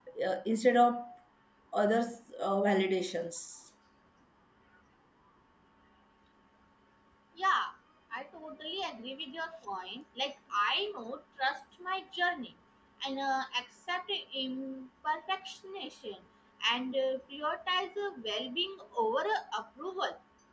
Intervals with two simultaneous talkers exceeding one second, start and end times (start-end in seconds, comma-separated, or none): none